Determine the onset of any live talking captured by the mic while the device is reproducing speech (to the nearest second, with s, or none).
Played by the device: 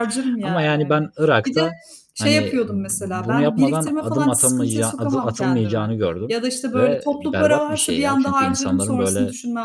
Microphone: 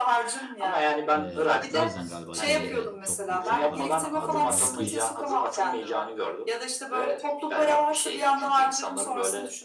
1 s